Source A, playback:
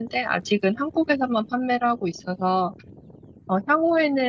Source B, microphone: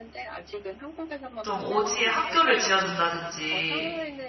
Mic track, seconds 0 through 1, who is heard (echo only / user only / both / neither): echo only